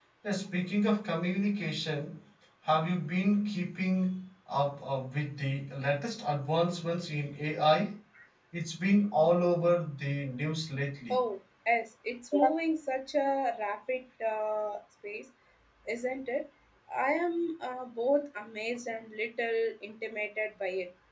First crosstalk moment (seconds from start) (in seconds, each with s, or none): none